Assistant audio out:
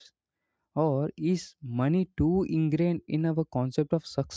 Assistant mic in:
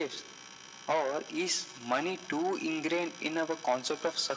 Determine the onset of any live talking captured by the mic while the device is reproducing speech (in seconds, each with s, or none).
none